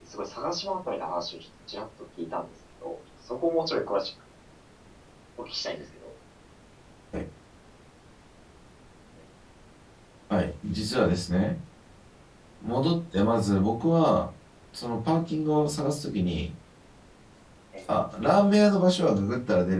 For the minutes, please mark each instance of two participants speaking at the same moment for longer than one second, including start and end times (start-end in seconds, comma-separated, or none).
none